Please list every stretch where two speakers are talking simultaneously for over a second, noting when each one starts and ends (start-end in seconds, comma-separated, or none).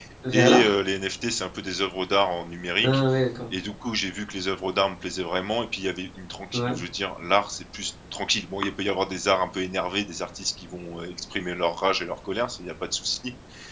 none